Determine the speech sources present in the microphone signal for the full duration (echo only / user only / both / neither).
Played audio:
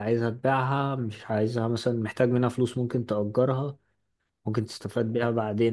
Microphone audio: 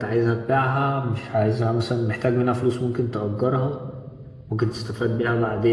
echo only